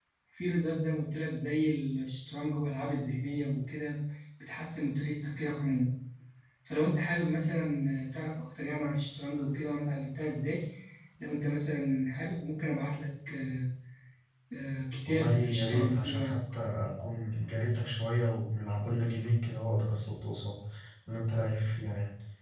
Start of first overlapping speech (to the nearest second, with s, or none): 15 s